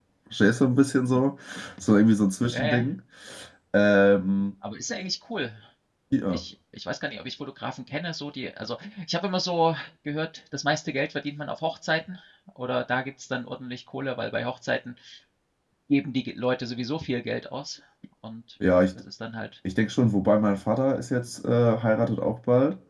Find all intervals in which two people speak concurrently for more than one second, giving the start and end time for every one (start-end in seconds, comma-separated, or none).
none